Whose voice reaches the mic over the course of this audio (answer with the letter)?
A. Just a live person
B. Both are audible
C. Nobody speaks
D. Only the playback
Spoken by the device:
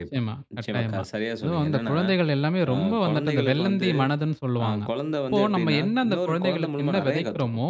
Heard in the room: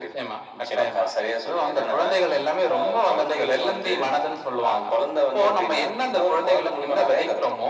D